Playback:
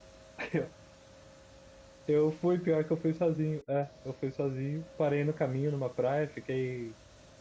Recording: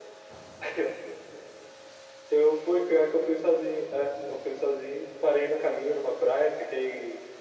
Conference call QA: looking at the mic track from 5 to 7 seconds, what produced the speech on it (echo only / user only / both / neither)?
echo only